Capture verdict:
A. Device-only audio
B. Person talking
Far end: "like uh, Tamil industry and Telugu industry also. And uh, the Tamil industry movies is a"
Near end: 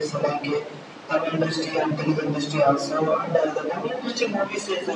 A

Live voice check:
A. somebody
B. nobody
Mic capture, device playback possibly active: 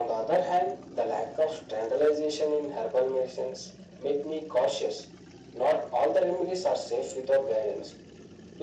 B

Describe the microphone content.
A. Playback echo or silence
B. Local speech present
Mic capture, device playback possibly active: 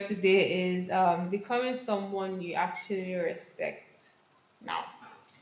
A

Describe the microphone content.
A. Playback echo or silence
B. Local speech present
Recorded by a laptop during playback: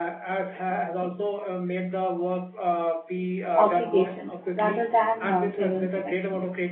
B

